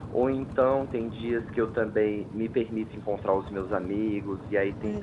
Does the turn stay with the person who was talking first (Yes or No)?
Yes